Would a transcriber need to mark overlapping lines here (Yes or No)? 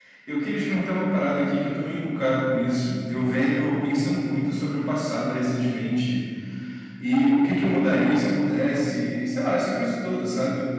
No